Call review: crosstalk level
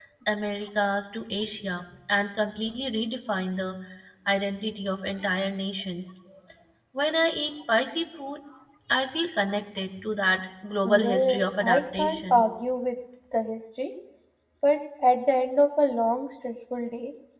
present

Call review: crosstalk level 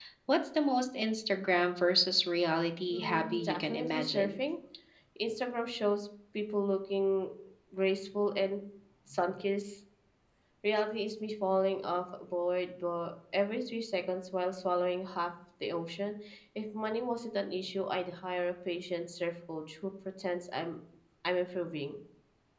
present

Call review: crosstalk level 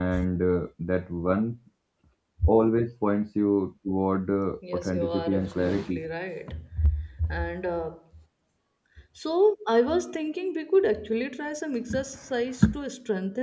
present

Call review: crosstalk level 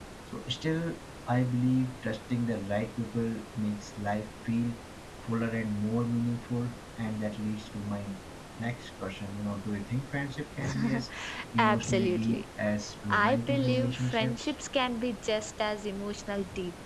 present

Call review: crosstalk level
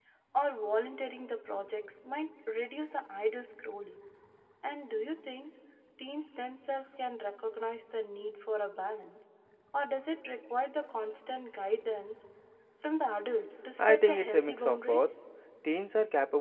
present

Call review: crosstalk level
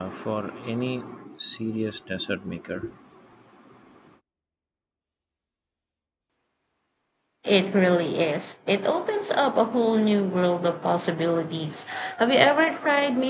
none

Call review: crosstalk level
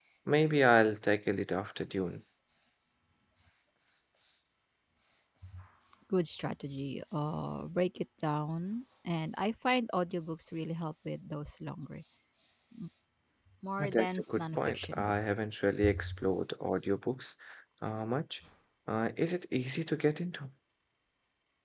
present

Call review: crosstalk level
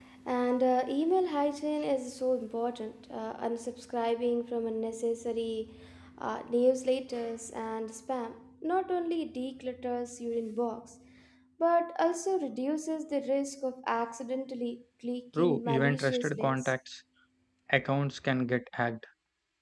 present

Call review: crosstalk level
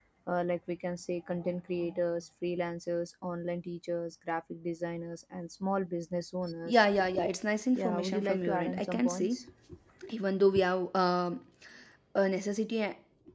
present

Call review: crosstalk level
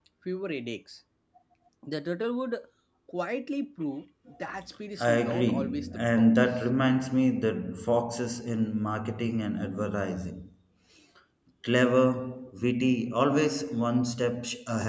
present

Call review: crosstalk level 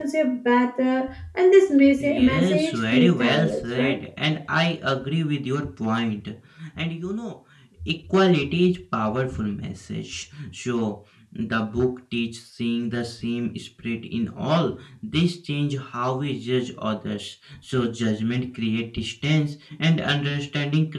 present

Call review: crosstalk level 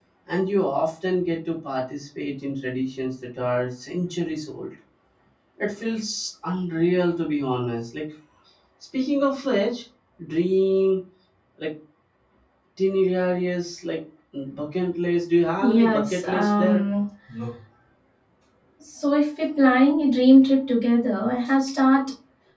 present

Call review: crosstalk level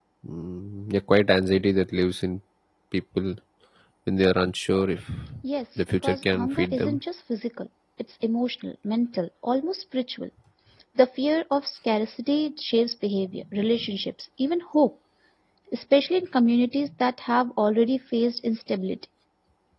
present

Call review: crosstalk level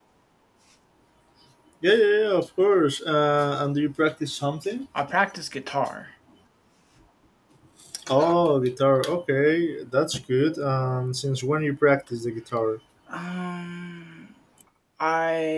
none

